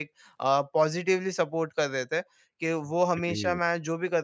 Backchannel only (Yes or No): Yes